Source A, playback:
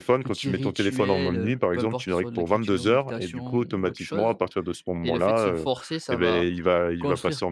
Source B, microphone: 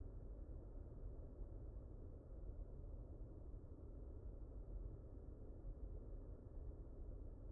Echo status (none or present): none